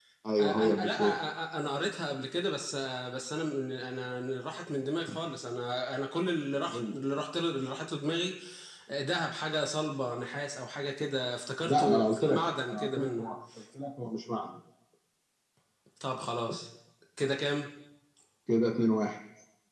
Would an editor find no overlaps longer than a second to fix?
No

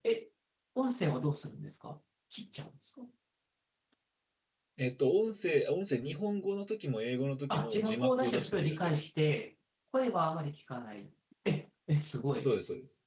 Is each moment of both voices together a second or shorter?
No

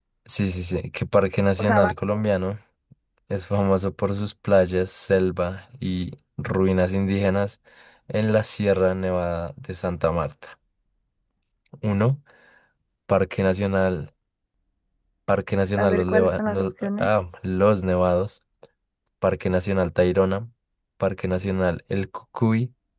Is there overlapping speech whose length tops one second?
Yes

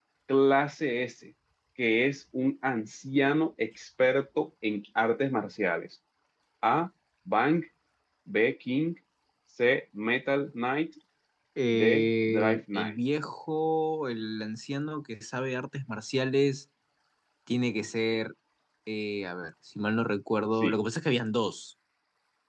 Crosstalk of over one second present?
Yes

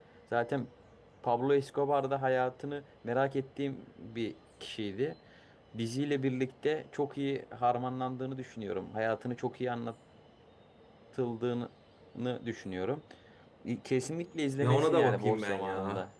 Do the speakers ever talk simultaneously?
Yes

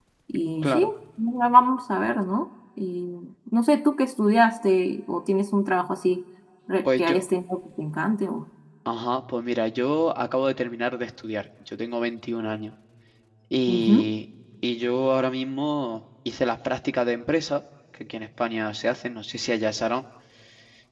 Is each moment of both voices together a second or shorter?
Yes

